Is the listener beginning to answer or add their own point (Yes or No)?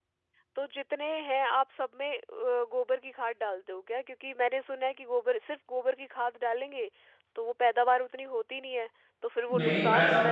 Yes